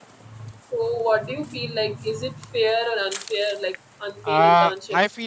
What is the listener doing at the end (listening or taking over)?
taking over